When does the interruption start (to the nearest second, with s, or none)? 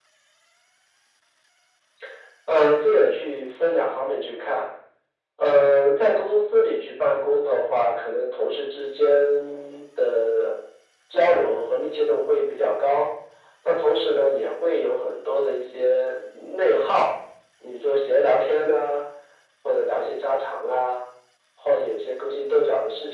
none